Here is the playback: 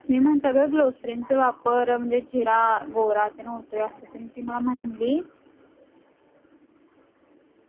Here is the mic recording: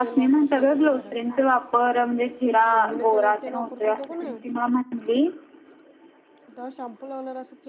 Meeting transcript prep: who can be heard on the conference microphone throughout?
both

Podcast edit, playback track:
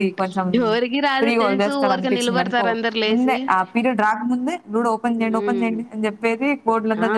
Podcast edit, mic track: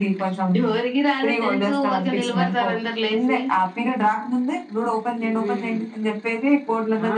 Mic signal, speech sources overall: echo only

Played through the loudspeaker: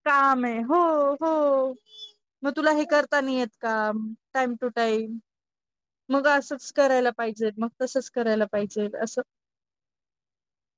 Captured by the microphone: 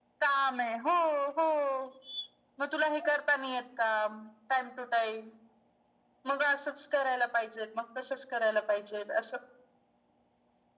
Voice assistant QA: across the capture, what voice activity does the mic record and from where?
echo only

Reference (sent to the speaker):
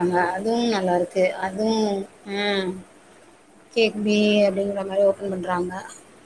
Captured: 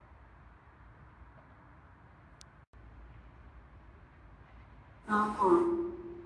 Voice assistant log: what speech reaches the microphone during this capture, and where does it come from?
user only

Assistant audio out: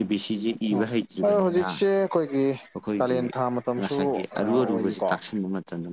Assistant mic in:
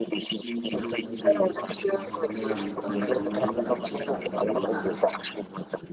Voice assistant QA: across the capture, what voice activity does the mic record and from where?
both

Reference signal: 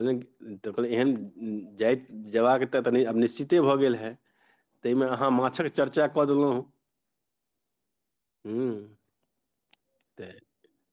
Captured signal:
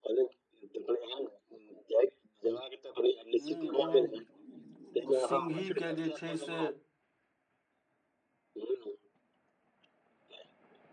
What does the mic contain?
both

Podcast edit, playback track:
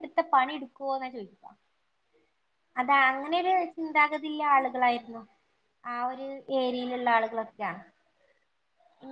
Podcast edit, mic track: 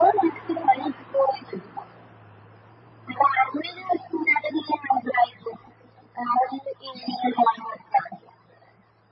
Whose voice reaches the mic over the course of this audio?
echo only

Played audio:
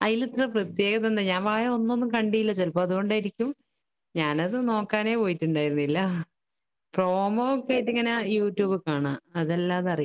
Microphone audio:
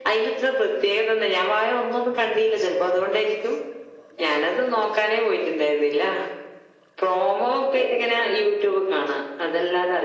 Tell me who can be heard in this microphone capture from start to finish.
echo only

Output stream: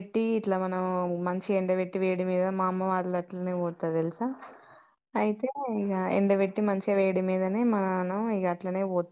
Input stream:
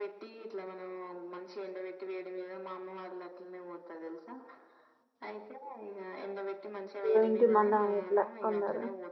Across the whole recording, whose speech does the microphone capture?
both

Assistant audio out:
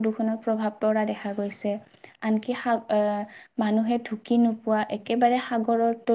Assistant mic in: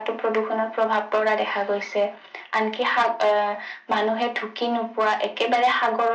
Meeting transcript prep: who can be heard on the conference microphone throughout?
echo only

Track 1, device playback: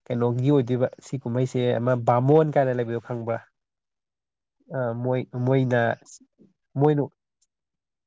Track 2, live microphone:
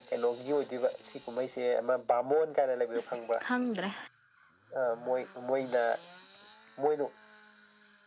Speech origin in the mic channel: both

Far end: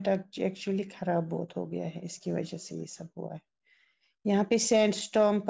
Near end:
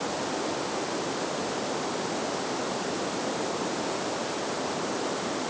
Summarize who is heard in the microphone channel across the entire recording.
neither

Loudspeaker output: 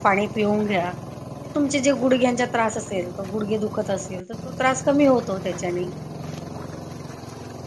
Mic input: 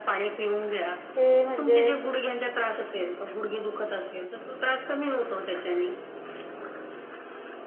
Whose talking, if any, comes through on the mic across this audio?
both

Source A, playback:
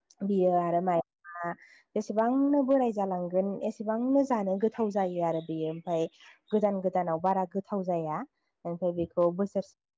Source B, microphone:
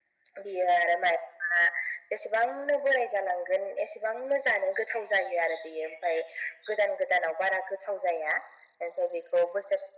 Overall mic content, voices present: echo only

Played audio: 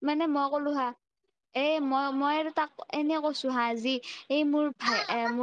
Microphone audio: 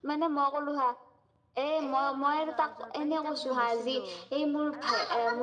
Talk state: both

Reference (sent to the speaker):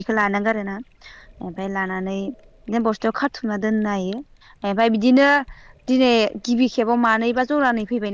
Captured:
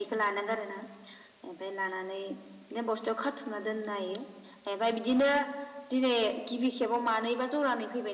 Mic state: echo only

